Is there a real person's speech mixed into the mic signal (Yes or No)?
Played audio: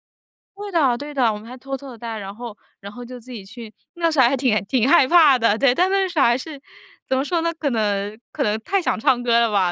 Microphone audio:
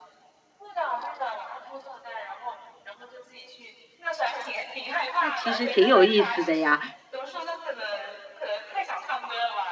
Yes